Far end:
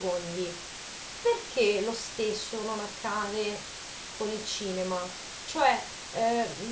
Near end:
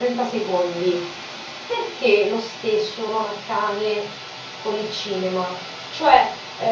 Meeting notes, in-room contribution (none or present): none